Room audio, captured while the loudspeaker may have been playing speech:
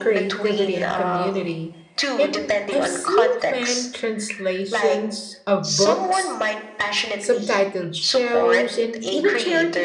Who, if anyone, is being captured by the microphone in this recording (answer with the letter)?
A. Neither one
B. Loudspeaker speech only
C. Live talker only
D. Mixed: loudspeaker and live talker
D